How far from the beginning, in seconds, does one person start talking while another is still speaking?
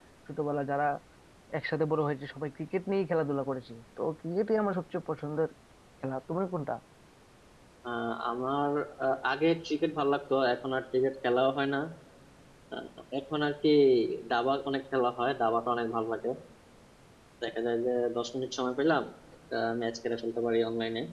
none

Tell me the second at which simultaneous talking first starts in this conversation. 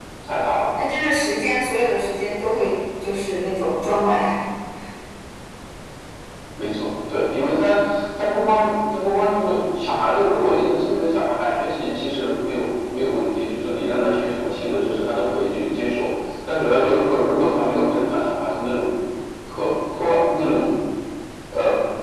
none

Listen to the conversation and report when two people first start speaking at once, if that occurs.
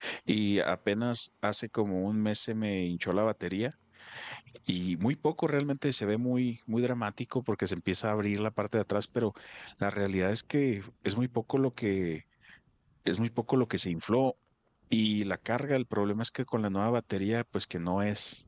none

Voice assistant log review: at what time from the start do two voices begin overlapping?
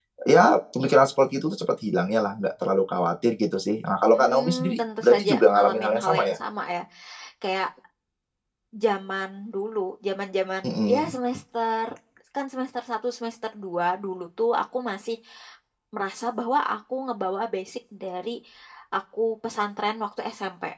4 s

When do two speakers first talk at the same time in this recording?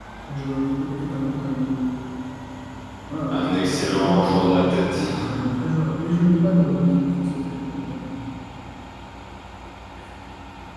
3 s

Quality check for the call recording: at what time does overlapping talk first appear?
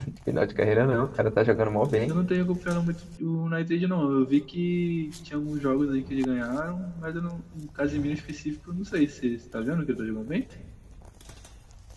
none

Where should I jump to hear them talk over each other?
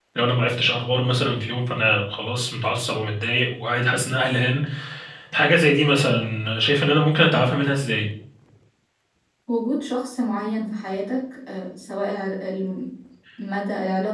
none

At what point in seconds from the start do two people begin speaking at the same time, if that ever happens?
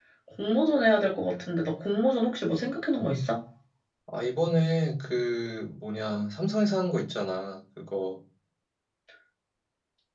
none

